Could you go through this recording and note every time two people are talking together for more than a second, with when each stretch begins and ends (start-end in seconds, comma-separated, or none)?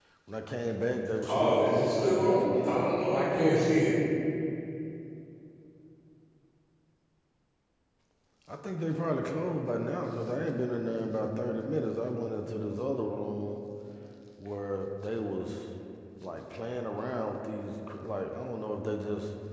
1.3-3.2